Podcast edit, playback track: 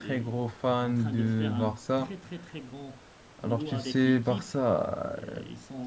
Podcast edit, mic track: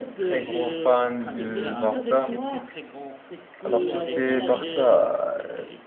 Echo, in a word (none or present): present